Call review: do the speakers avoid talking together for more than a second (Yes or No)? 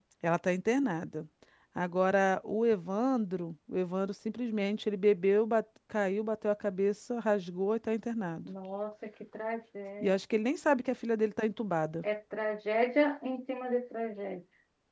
Yes